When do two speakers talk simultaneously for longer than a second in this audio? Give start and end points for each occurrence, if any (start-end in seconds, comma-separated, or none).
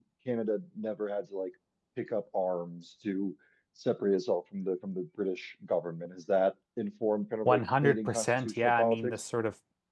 7.5-9.2